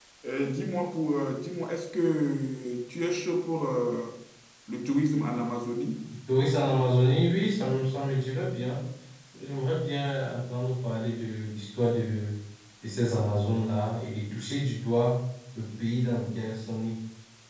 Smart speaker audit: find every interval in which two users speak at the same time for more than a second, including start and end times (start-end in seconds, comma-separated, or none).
none